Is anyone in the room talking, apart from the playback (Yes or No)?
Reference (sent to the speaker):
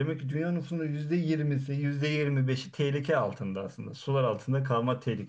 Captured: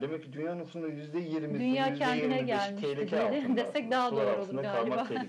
Yes